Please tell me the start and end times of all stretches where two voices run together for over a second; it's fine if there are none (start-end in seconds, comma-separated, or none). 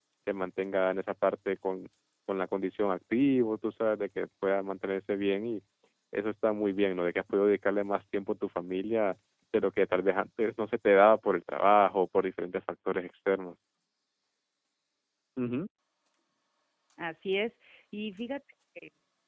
none